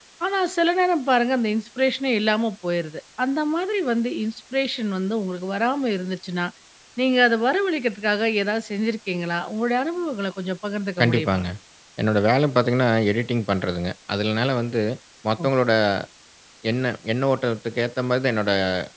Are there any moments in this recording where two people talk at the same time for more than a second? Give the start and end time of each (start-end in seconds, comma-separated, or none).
none